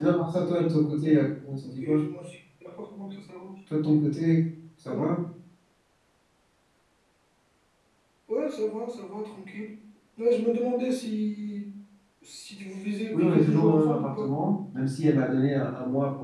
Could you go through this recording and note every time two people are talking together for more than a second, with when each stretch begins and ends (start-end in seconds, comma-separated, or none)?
13.1-14.3